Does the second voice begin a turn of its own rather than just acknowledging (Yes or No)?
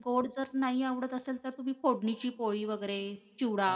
Yes